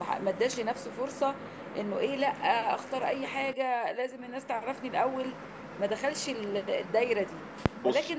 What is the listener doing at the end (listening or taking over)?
listening